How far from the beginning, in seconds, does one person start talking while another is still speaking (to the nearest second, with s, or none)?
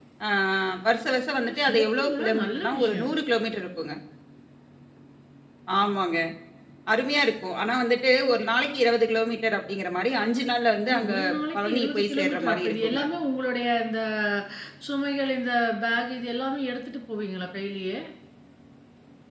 1 s